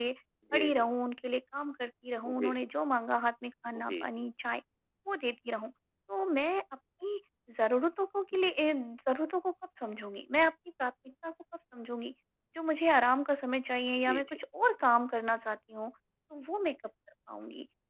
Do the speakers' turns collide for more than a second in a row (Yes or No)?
No